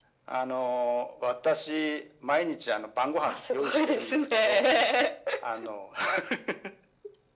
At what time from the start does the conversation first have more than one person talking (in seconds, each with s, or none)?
3.3 s